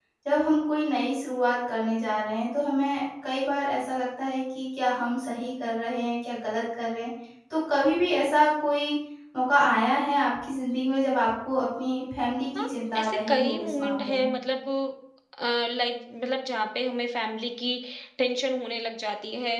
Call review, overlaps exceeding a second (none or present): present